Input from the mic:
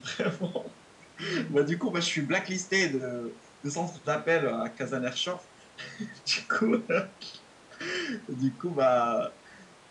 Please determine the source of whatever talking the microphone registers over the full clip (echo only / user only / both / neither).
echo only